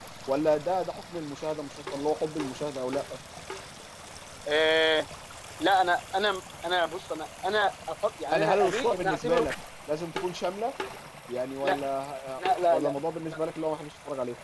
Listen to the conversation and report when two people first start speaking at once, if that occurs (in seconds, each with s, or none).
8.3 s